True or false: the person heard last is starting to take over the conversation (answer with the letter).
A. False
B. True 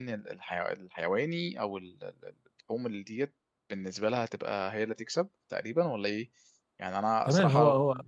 B